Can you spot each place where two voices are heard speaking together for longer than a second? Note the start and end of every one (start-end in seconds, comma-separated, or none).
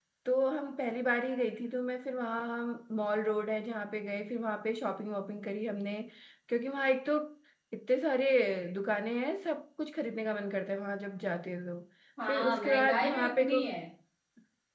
12.3-13.6